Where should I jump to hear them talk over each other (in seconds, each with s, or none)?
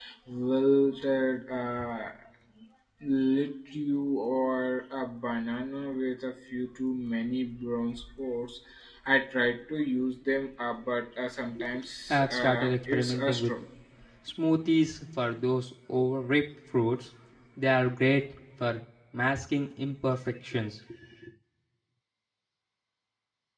12.1 s